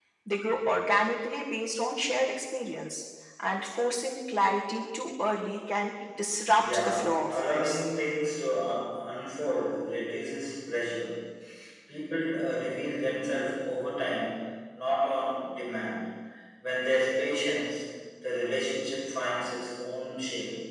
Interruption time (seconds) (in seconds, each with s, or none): 6.6 s